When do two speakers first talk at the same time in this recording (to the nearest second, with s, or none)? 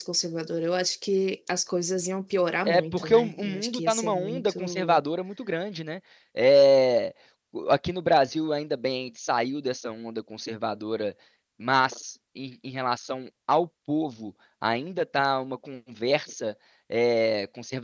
3 s